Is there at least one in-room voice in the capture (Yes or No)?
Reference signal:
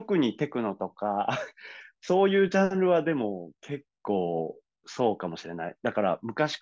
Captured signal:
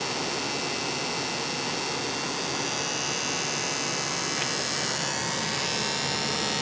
No